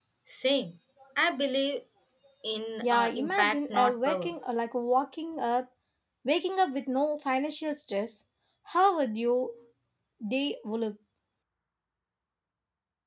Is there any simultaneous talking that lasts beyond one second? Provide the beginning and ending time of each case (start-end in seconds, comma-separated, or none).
2.8-4.3